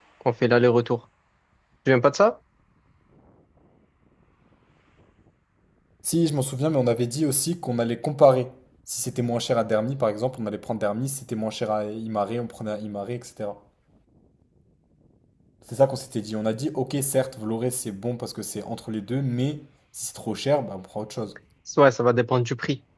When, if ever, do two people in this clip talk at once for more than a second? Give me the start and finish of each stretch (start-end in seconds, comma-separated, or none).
none